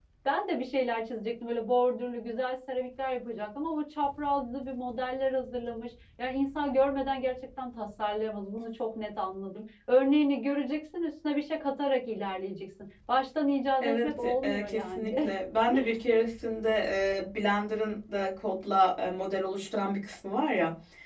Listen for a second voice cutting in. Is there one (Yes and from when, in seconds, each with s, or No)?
Yes, from 13.8 s